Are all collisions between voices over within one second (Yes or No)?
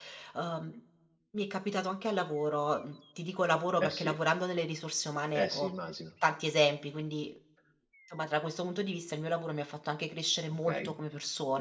Yes